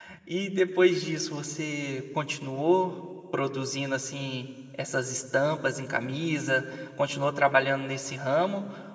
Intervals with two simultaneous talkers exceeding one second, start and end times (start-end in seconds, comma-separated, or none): none